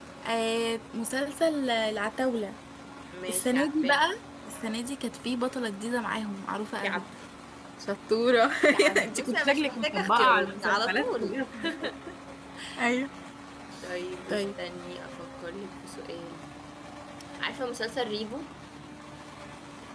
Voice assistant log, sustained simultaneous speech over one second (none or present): present